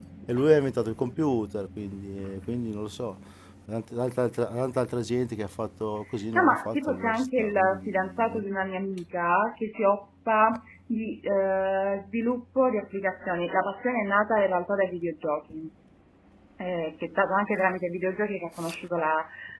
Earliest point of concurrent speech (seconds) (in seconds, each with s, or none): 6.3 s